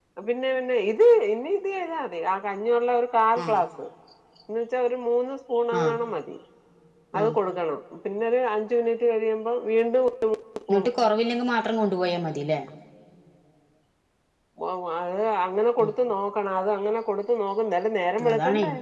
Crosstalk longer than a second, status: none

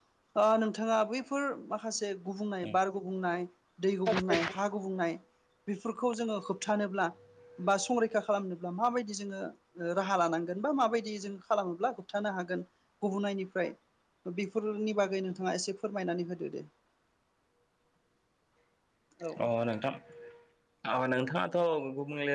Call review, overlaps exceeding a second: none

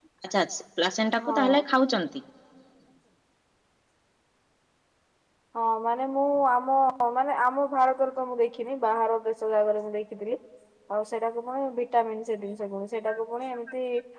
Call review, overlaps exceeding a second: none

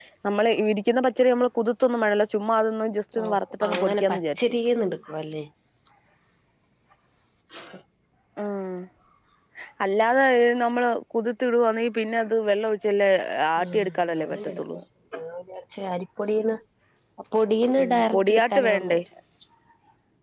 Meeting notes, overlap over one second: present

